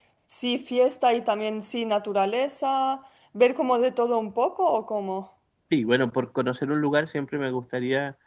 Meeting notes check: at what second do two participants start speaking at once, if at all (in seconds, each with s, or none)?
none